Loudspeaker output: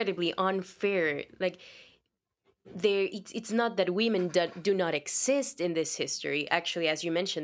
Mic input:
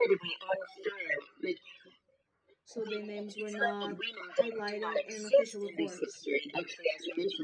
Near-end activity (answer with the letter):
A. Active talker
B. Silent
A